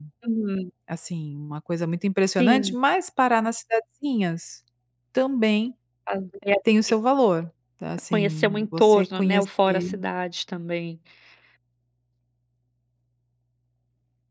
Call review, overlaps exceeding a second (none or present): present